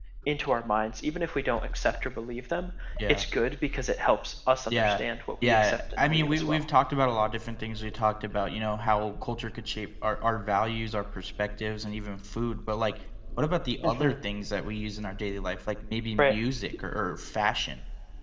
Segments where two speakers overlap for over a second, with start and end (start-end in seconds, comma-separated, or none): 5.4-6.6